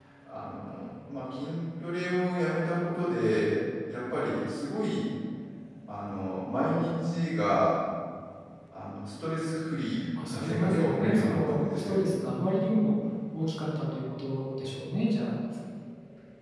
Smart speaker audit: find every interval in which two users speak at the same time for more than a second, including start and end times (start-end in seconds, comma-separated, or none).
10.3-12.0